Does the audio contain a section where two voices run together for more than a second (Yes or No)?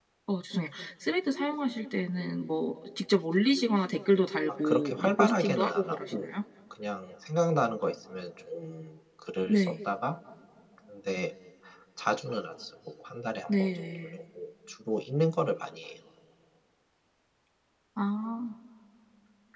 Yes